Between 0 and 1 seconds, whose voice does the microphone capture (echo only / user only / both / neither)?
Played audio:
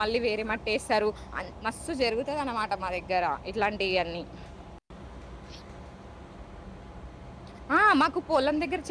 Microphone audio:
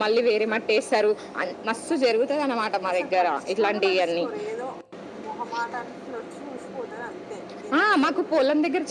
echo only